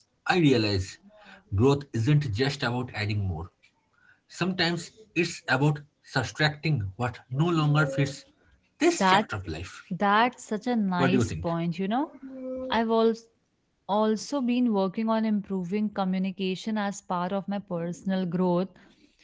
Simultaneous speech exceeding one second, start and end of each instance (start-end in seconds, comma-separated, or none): none